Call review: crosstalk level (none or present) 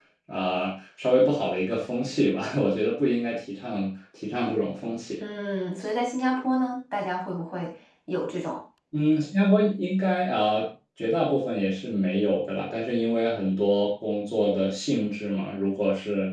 none